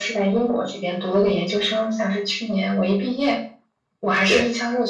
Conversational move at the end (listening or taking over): listening